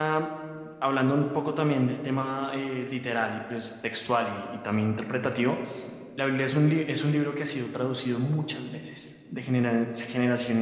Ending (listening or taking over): listening